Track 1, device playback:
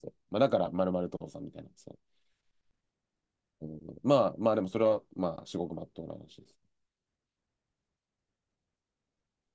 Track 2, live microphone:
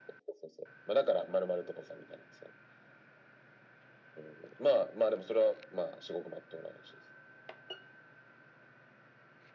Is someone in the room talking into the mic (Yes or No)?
No